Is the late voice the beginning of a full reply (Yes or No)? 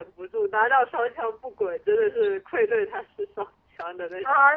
Yes